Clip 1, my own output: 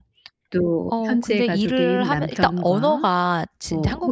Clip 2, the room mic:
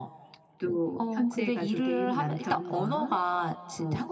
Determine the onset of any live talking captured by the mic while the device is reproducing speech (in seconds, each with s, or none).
none